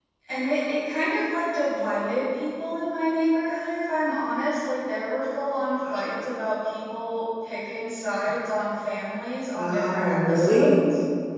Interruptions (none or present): present